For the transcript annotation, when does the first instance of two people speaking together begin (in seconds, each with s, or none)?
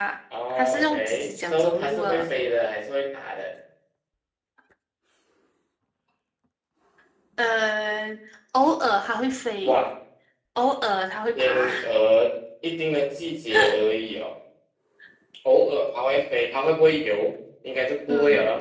0.5 s